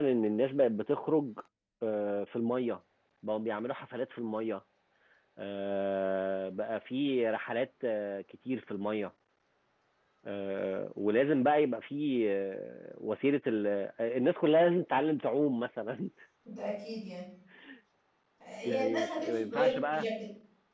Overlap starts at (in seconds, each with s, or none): 18.6 s